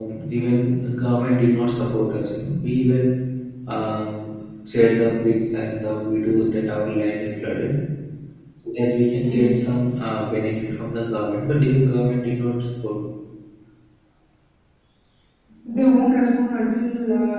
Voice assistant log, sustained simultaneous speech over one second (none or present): none